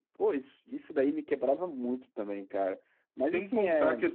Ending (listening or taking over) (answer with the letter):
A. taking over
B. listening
A